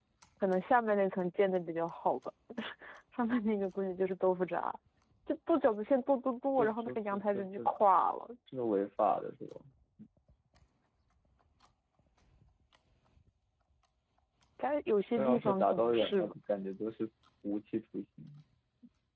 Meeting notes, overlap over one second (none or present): present